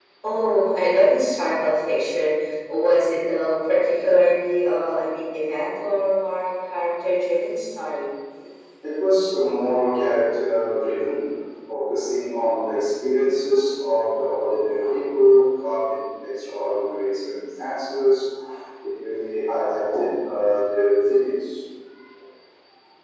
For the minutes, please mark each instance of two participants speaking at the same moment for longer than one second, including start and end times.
none

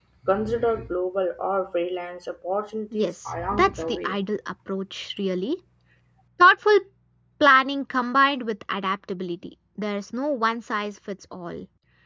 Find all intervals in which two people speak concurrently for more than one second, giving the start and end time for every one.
2.9-4.2

